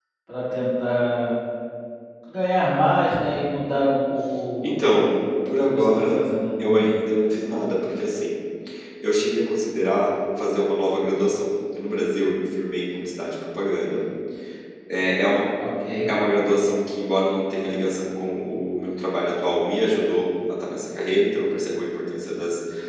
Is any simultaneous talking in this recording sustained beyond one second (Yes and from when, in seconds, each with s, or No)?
Yes, from 4.6 s